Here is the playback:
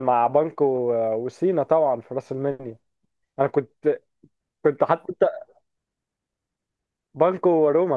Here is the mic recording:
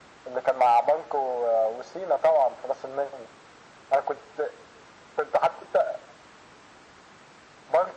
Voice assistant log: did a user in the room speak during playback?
No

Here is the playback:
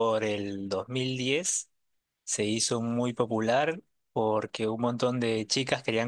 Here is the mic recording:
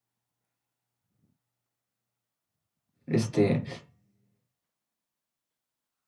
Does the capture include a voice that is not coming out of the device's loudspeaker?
Yes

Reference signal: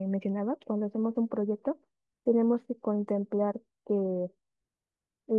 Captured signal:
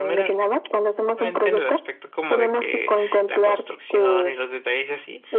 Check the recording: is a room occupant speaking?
Yes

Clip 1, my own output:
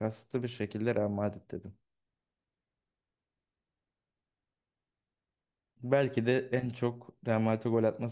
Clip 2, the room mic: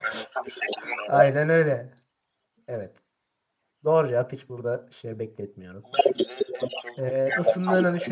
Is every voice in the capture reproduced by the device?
No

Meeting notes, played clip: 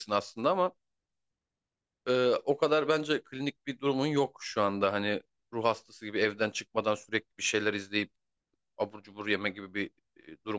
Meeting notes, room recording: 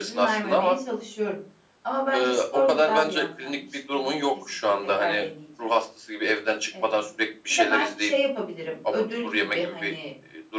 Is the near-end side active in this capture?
Yes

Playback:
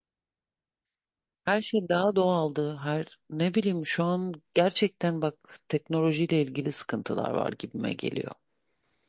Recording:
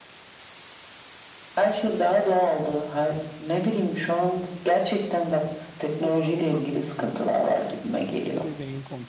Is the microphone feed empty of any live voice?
No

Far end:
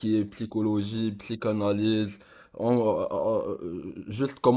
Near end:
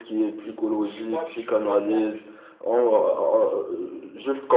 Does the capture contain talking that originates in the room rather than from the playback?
Yes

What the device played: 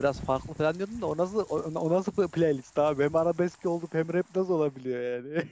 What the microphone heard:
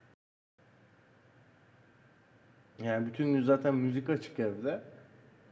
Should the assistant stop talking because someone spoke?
Yes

